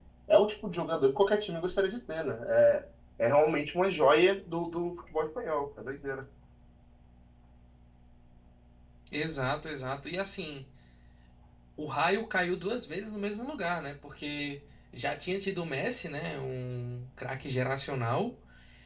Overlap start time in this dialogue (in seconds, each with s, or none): none